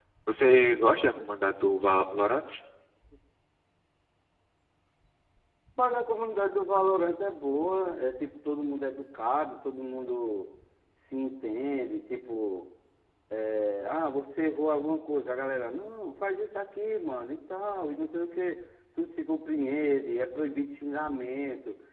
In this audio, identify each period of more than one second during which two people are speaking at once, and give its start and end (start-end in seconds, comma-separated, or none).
none